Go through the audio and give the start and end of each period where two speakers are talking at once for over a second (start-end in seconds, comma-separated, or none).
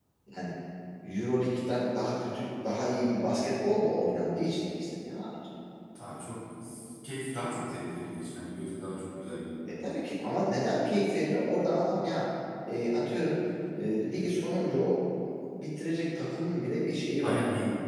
none